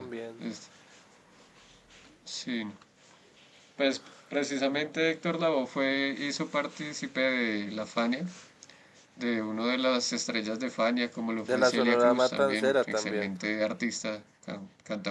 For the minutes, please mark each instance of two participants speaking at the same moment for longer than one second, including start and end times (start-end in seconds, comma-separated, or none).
11.4-13.3